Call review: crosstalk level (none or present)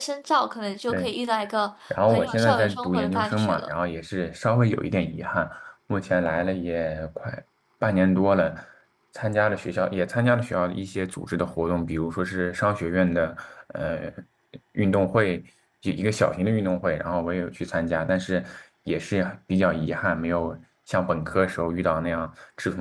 present